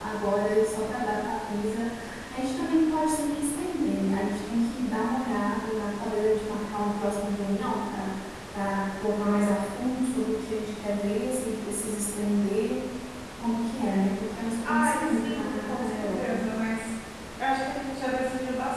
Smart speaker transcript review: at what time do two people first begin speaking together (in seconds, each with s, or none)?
14.7 s